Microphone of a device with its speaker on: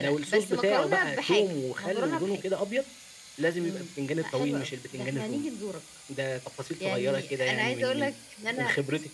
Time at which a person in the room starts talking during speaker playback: none

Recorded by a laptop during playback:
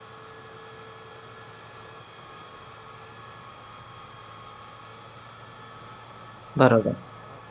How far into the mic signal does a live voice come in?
6.6 s

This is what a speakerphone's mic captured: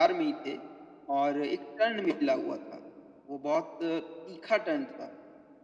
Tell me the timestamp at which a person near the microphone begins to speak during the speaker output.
none

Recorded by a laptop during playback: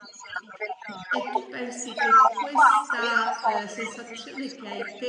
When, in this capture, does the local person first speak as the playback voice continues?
1.1 s

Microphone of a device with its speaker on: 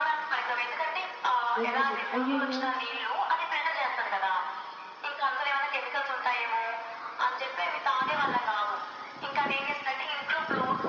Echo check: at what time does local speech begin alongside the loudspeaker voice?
1.6 s

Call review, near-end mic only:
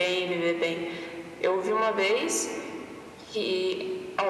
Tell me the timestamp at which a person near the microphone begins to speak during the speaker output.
none

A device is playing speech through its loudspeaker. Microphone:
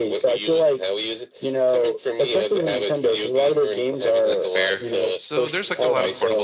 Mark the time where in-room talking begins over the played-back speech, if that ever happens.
4.3 s

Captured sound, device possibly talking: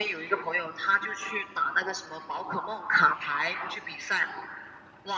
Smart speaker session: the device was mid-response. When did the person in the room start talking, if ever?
none

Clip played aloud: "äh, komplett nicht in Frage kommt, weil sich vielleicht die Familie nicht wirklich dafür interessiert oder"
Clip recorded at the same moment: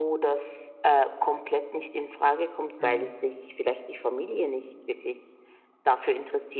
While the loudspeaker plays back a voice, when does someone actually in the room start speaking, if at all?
2.8 s

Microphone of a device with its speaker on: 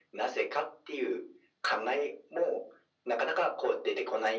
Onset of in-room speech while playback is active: none

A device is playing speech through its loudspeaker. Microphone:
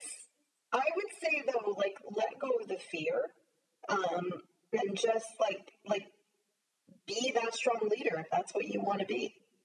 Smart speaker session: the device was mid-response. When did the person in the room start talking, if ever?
none

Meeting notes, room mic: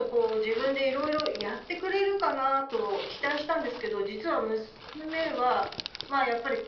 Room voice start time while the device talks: none

